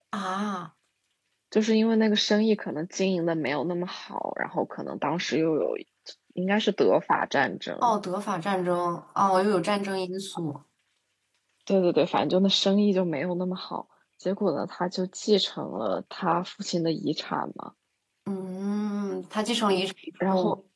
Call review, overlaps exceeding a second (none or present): none